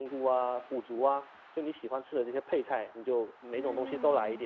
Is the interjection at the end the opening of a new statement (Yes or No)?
Yes